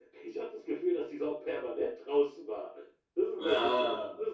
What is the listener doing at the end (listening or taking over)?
listening